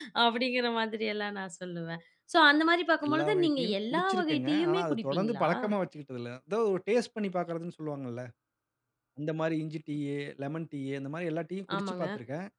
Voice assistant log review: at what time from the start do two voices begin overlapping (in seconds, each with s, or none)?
3.1 s